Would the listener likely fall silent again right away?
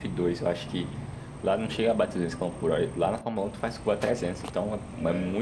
Yes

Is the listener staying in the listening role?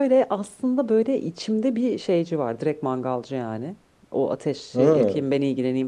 Yes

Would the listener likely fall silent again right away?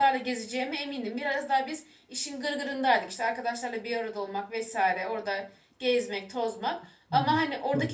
Yes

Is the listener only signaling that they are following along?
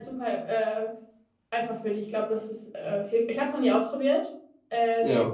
Yes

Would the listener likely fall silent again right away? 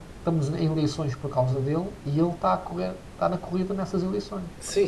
No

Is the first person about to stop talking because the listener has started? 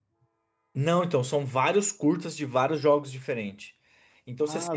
No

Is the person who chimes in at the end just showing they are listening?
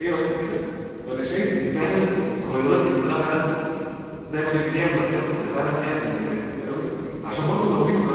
Yes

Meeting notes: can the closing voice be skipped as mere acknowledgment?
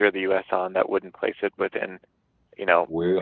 Yes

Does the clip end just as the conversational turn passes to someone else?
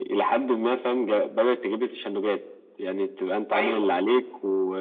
No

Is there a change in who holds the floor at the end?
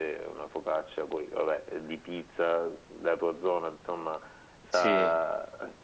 No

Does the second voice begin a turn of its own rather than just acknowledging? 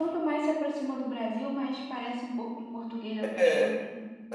Yes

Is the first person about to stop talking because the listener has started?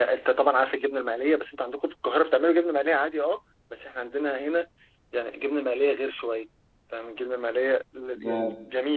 No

